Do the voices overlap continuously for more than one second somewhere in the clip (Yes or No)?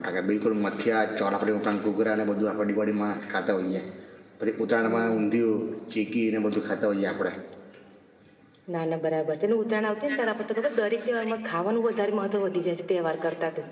No